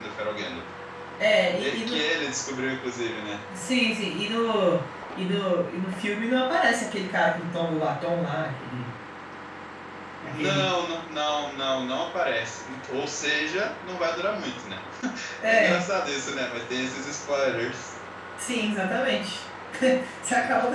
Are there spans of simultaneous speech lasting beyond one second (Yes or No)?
No